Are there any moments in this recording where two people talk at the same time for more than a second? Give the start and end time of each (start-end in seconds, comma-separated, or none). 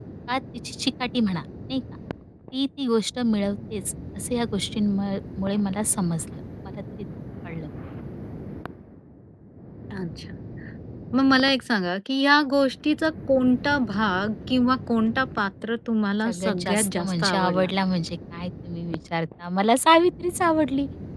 16.2-17.7